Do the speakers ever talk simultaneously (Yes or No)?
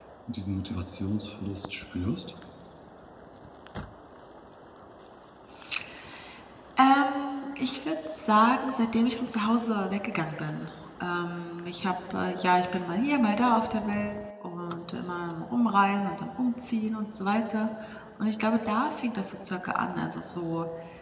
No